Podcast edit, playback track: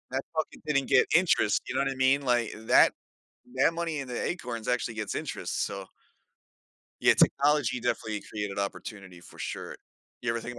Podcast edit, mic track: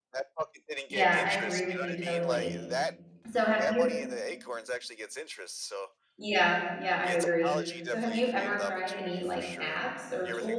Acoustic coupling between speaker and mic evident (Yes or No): Yes